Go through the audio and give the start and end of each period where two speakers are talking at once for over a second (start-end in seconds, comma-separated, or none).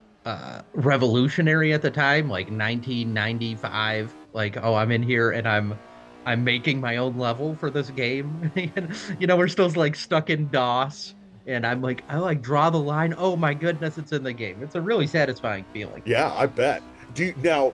none